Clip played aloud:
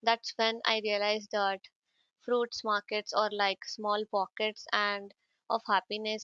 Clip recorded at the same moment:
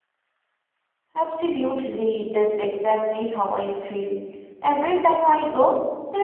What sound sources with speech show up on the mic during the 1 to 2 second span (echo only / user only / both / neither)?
user only